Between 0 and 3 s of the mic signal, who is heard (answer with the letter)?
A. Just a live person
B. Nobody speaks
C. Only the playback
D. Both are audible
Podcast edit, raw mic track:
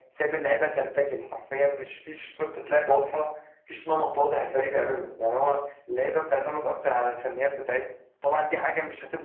C